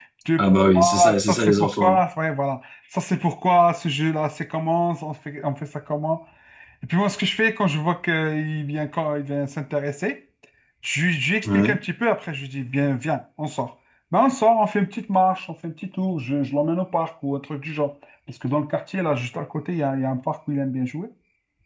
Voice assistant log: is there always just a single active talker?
No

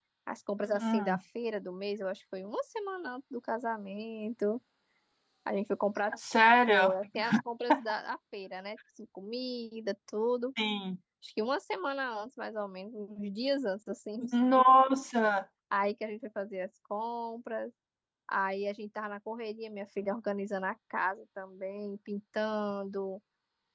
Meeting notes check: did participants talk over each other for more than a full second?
No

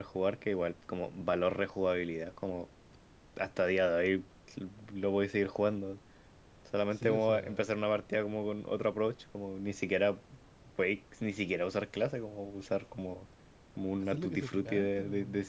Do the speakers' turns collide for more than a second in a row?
Yes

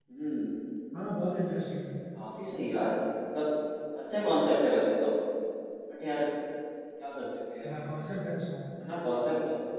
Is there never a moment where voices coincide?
Yes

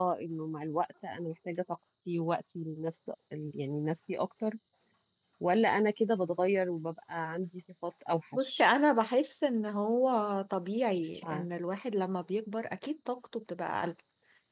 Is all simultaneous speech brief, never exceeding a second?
Yes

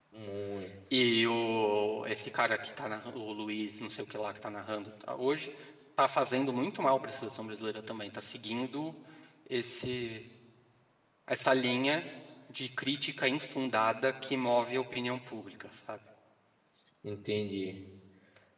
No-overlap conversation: Yes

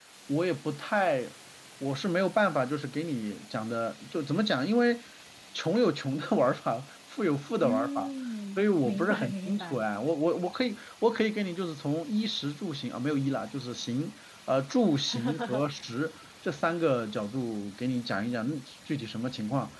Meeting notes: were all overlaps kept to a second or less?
No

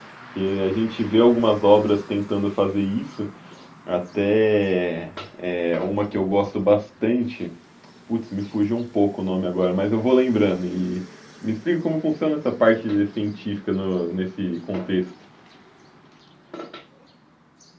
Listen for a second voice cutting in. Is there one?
No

